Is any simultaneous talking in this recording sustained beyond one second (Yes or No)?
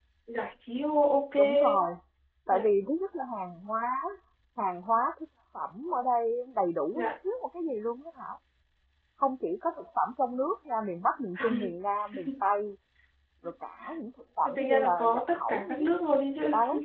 Yes